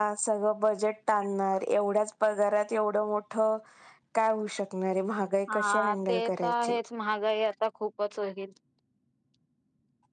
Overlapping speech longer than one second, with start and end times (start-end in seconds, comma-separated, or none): 5.5-6.8